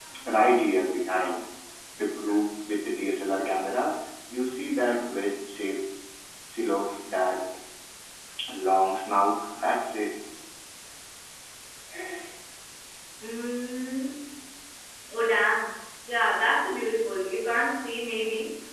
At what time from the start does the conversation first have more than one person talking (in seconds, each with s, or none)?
none